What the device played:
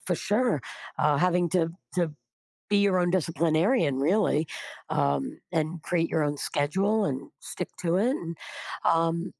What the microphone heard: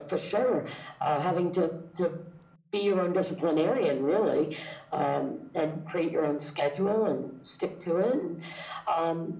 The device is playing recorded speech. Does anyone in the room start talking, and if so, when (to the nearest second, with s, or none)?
none